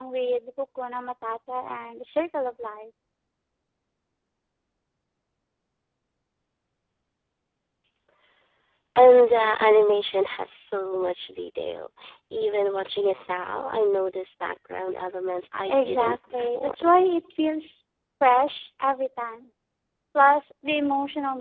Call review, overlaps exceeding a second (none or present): present